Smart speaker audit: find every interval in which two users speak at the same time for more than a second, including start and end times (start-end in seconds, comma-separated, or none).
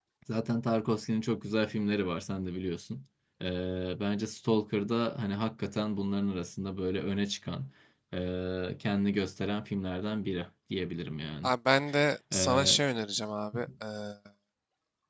none